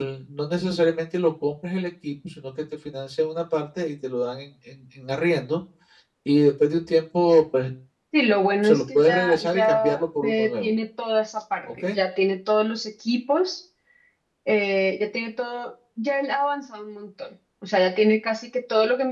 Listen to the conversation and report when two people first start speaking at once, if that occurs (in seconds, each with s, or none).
8.6 s